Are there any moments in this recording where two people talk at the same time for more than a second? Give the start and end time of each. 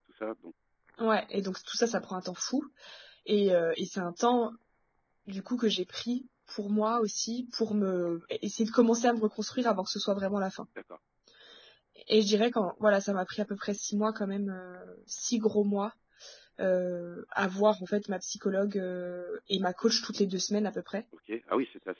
none

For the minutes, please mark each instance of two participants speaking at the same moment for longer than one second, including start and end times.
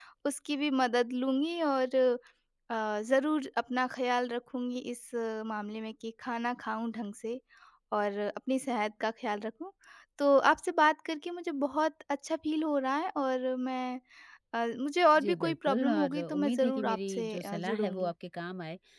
15.2-18.1

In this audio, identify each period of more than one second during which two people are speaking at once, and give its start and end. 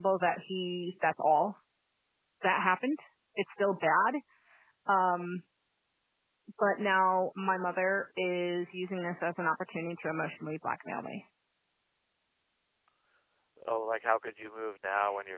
none

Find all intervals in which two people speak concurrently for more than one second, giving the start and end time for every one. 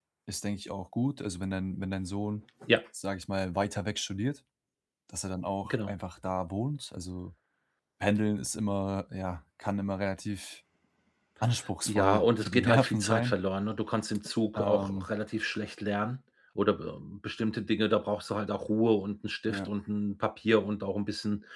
11.9-13.4

